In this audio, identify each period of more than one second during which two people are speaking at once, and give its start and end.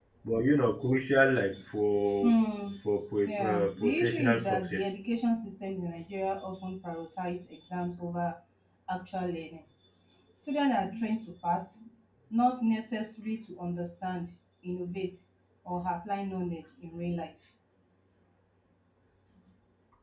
3.2-4.8

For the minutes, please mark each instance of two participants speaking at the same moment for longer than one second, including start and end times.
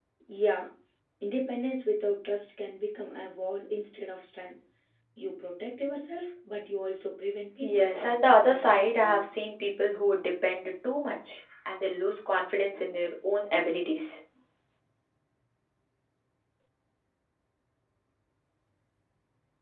7.6-9.4

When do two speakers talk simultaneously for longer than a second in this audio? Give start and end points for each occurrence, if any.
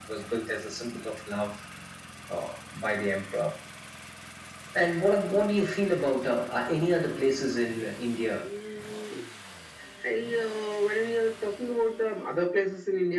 none

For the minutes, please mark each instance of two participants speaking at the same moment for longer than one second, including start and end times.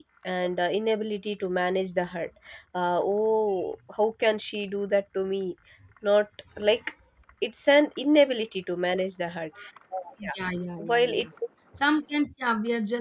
none

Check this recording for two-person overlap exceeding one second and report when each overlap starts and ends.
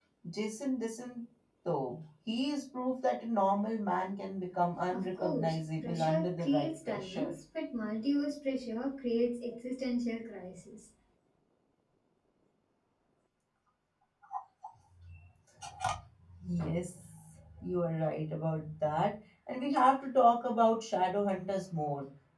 4.9-7.3

